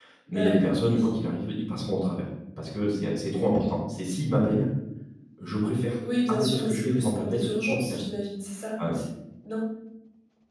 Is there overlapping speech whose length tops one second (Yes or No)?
Yes